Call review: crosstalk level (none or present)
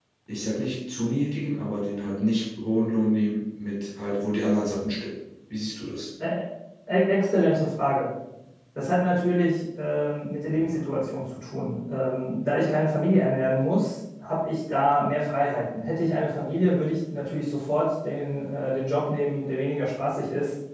none